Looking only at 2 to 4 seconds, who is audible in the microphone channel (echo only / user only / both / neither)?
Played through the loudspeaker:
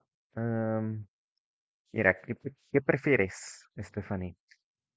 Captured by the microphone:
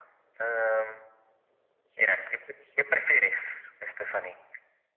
echo only